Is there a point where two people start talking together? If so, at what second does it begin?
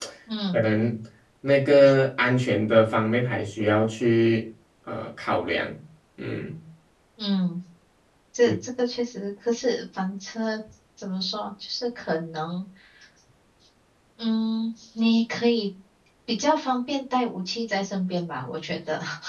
none

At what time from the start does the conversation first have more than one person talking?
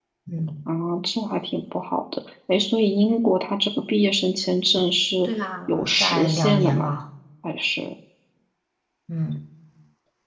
5.7 s

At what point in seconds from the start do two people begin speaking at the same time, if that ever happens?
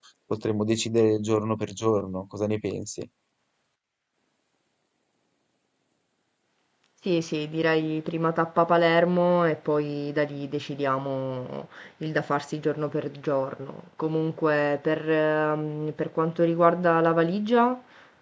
none

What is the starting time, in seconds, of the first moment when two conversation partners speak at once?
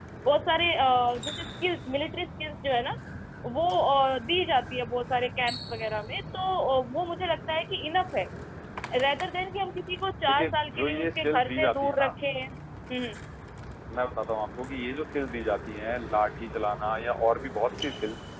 10.3 s

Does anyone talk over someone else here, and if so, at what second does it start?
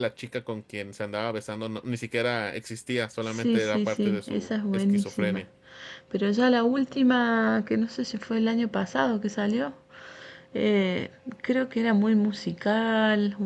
3.3 s

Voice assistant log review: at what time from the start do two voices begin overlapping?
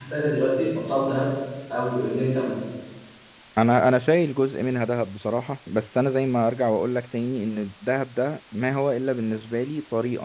none

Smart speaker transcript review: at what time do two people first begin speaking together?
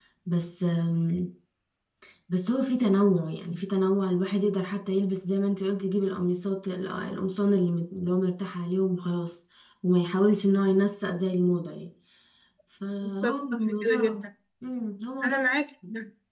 13.0 s

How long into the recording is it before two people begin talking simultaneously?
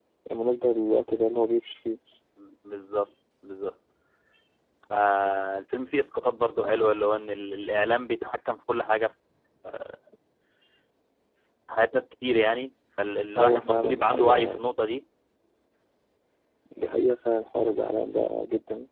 13.3 s

